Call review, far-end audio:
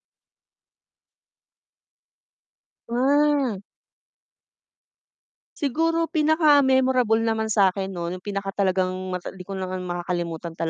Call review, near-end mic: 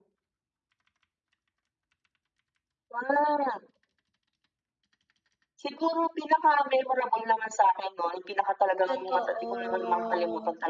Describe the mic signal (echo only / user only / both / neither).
both